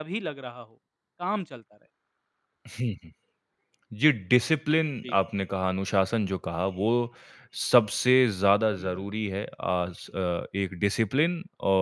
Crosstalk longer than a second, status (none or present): none